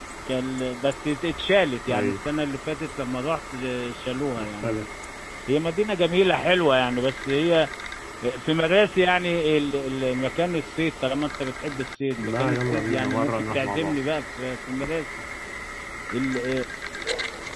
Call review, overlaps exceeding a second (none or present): present